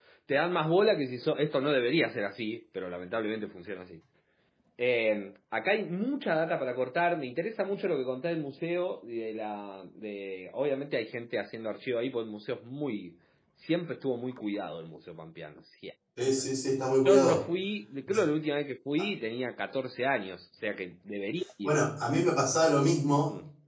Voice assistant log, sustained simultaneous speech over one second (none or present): none